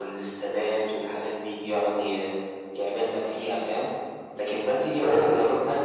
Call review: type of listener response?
listening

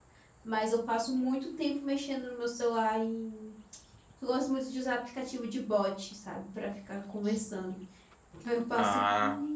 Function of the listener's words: listening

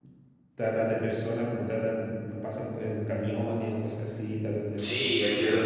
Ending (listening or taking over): taking over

